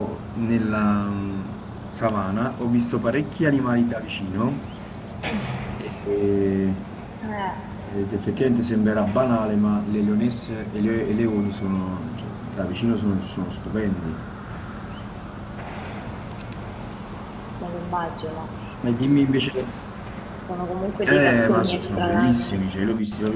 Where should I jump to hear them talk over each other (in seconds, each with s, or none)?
21.1 s